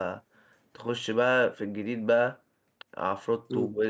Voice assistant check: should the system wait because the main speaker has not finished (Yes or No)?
Yes